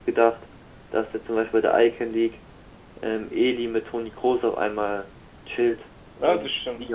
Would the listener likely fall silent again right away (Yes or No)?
No